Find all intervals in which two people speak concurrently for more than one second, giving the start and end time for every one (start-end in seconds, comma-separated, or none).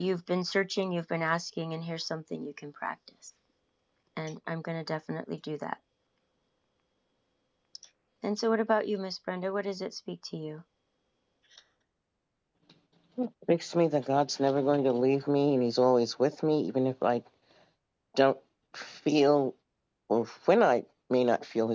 none